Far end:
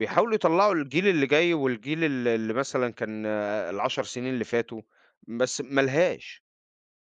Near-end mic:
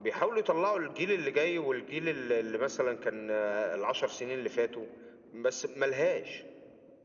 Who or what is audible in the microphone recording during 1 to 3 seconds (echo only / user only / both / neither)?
echo only